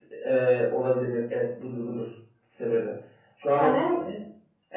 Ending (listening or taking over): listening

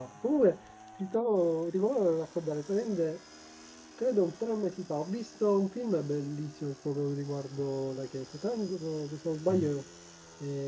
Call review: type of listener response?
listening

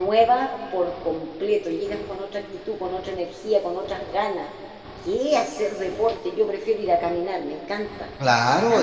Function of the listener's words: taking over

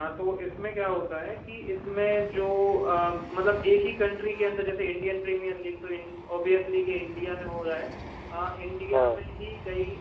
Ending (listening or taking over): listening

